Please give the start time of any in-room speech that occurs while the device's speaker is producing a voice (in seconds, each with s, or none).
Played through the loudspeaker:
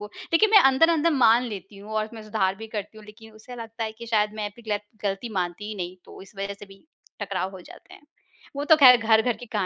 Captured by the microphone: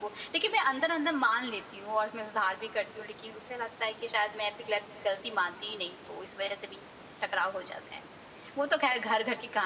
none